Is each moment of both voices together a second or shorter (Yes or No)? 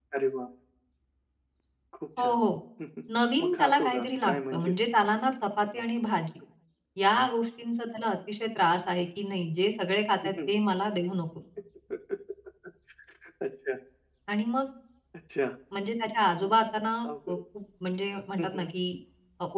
No